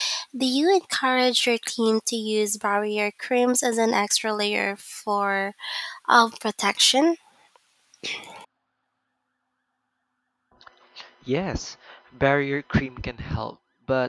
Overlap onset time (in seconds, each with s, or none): none